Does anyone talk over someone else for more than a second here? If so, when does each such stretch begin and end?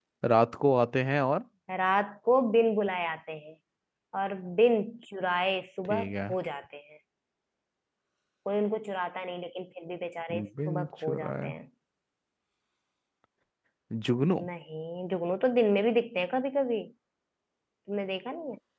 10.3-11.5

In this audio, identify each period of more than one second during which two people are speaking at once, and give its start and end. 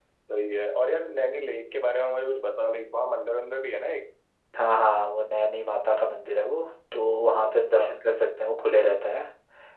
none

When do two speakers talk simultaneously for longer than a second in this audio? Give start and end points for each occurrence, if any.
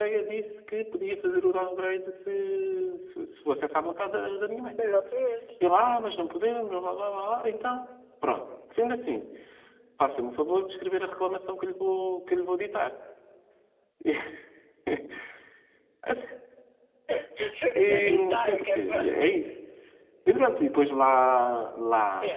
17.8-19.1

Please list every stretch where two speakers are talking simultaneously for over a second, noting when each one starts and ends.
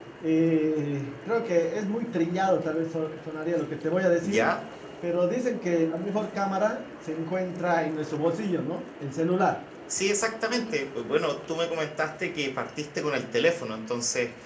none

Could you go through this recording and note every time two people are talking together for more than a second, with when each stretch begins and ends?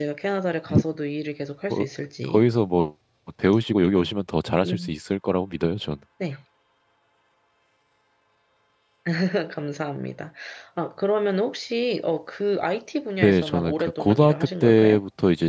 13.2-15.0

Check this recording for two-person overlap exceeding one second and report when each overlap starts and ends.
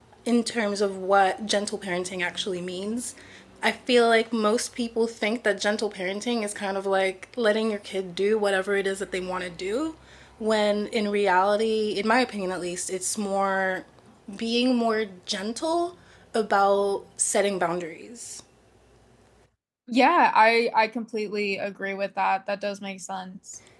none

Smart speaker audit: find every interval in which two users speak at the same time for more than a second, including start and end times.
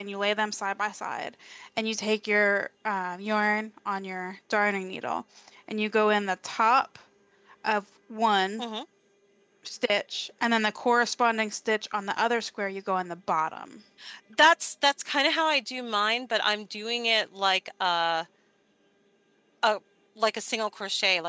none

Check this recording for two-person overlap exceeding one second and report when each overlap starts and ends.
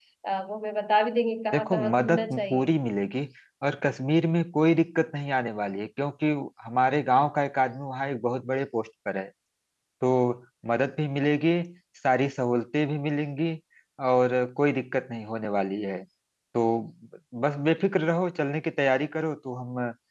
1.5-2.8

